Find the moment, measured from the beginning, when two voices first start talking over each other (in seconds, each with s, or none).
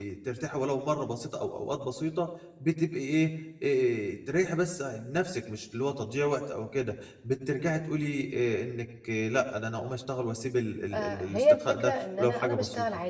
10.9 s